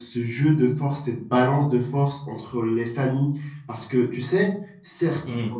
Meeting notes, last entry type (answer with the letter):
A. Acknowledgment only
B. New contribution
A